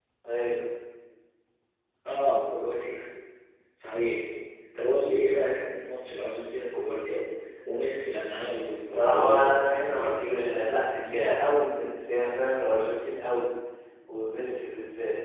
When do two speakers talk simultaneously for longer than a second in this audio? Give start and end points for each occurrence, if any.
8.9-11.4

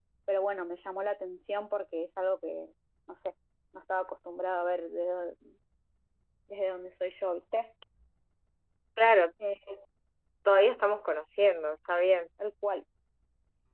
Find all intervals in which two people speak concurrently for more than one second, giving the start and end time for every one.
none

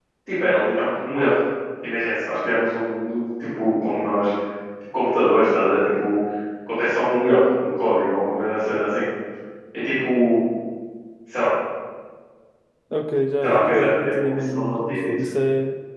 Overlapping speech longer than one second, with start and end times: 13.4-15.1

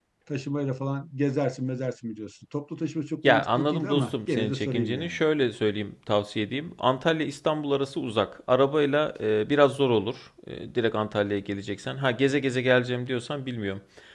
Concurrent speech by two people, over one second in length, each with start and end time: 3.2-5.2

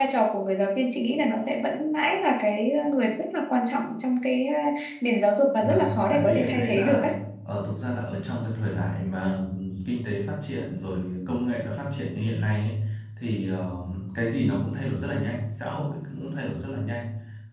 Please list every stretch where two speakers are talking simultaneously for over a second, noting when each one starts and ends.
5.6-7.1

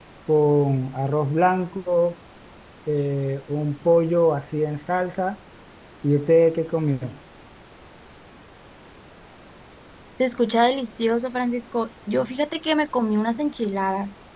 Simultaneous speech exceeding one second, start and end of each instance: none

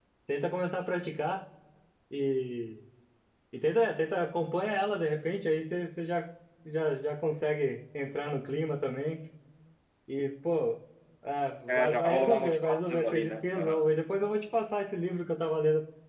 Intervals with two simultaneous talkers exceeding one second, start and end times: 11.7-13.9

